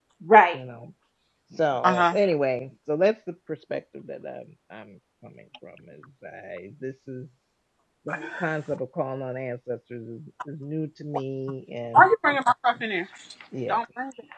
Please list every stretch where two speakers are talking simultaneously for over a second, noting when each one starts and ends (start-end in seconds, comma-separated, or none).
none